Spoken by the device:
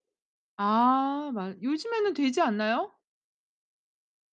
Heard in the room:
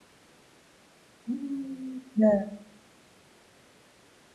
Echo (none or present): none